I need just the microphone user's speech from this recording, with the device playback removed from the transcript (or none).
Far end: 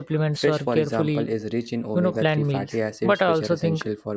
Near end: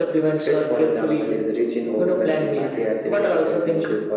none